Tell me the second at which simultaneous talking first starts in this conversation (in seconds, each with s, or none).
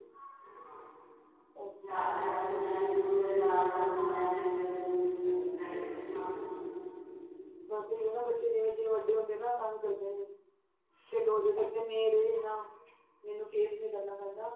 none